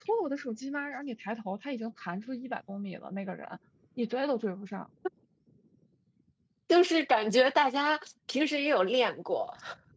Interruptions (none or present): none